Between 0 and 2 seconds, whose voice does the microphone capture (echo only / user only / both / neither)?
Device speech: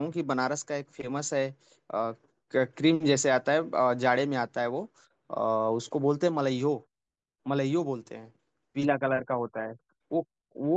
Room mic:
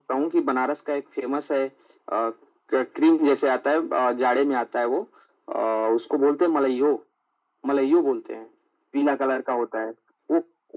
echo only